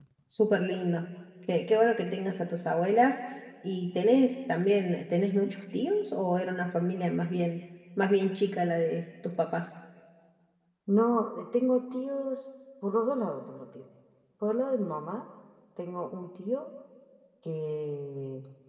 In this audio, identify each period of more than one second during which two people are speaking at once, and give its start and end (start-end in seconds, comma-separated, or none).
none